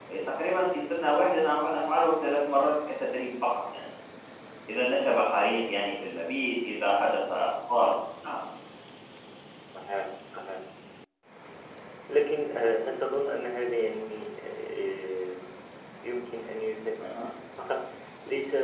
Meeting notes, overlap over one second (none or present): none